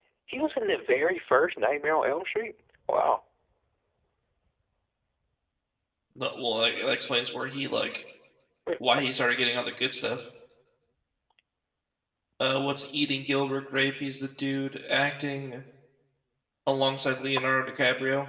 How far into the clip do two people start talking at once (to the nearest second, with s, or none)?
none